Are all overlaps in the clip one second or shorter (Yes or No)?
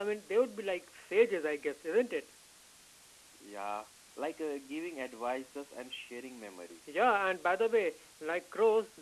Yes